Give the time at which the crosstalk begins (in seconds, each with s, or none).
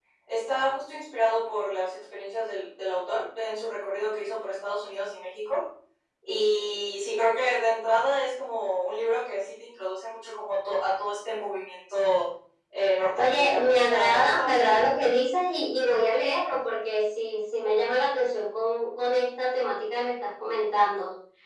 13.2 s